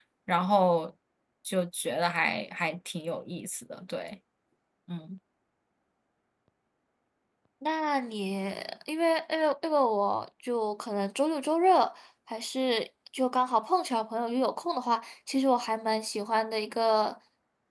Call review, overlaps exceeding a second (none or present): none